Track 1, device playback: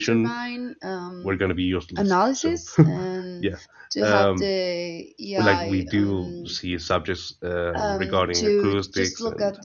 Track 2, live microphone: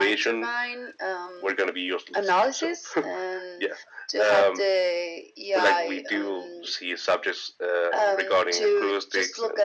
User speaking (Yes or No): No